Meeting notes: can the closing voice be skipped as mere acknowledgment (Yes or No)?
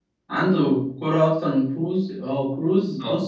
No